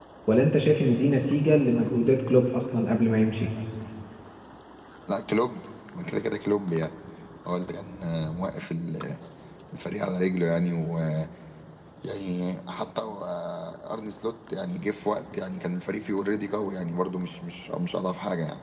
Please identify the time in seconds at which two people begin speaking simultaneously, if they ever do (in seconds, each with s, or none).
none